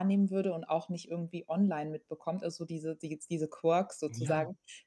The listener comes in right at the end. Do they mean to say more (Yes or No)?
No